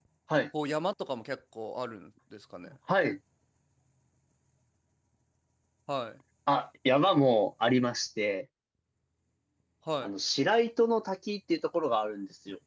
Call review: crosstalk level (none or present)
none